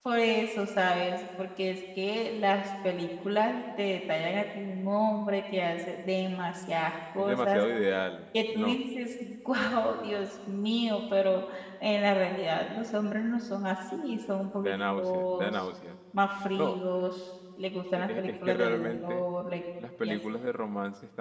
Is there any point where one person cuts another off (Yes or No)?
Yes